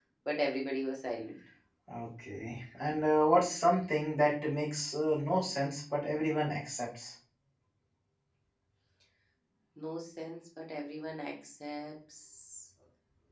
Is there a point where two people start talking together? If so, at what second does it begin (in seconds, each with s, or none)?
none